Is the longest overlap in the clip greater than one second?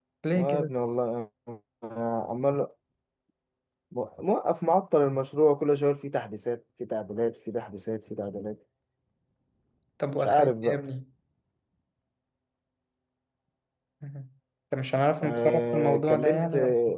Yes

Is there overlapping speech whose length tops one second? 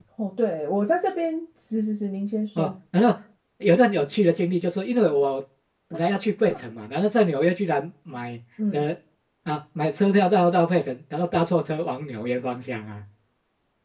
No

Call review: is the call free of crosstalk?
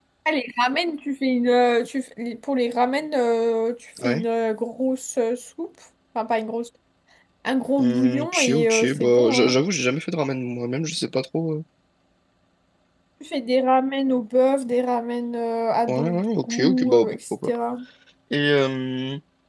No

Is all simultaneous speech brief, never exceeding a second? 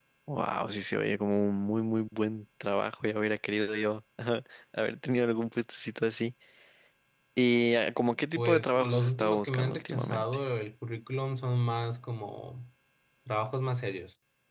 No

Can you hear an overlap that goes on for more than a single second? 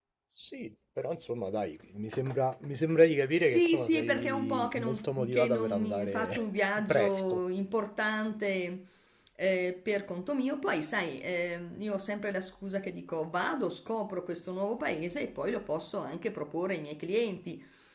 Yes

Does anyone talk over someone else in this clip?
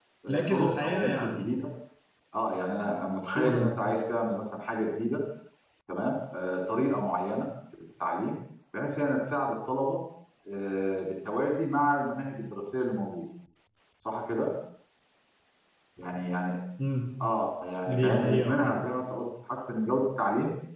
Yes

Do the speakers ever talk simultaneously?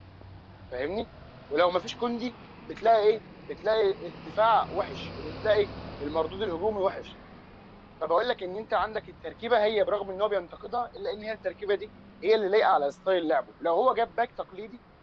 No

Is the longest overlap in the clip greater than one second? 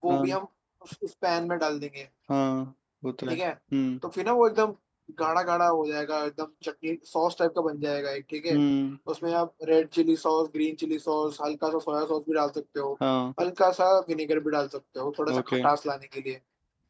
No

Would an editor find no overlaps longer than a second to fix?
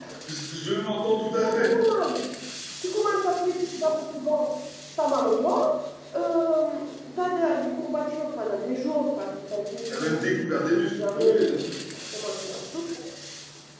No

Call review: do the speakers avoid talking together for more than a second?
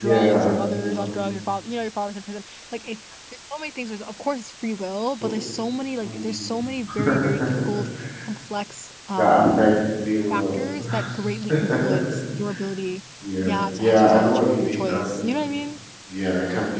No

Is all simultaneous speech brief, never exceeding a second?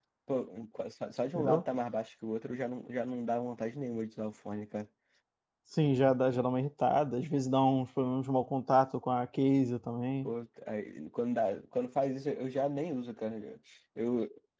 Yes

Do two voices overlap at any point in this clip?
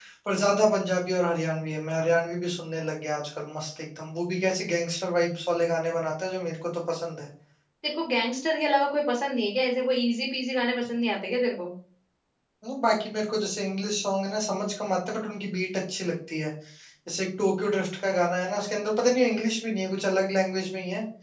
No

